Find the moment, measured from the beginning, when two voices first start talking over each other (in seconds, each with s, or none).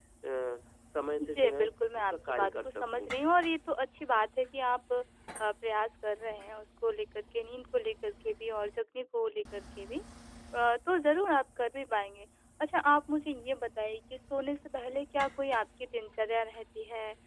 1.2 s